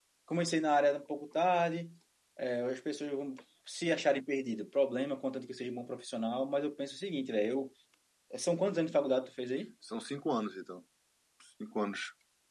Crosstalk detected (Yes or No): No